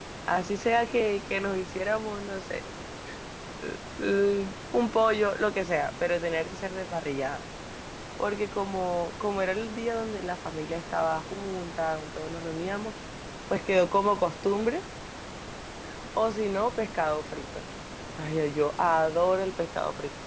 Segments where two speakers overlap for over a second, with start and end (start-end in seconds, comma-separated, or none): none